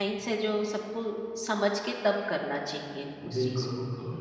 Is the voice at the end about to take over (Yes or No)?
Yes